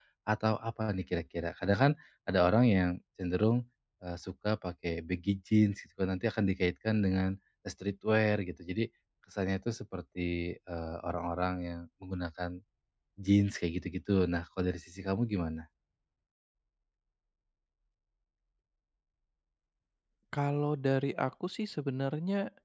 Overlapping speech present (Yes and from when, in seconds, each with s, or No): No